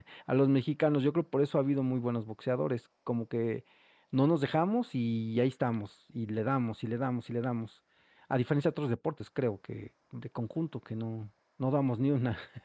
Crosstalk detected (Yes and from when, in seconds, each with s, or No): No